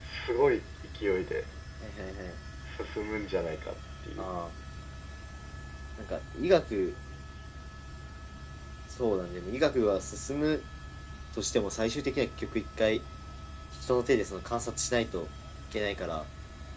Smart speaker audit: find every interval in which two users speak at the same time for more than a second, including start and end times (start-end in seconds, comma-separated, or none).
none